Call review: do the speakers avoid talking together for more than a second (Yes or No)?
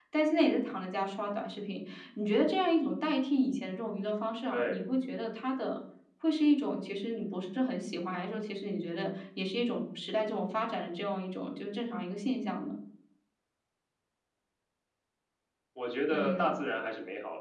Yes